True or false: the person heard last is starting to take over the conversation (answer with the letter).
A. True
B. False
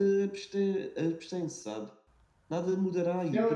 A